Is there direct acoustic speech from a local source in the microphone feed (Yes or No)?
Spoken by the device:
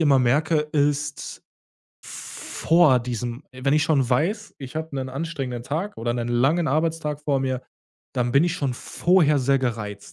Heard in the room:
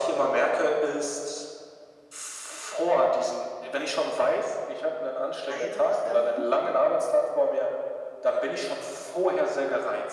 Yes